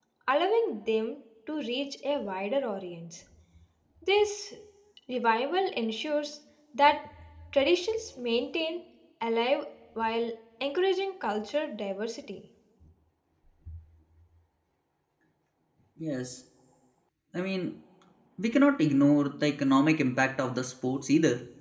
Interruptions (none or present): none